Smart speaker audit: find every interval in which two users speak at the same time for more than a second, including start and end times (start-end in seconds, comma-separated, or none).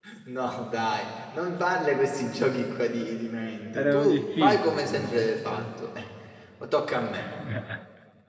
3.8-5.7